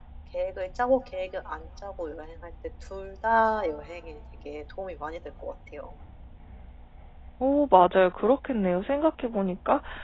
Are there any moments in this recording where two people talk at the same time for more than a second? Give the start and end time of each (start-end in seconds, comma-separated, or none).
none